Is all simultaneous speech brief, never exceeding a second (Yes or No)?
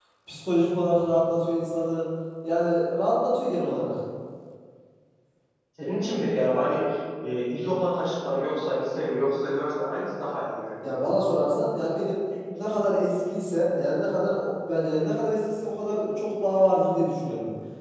Yes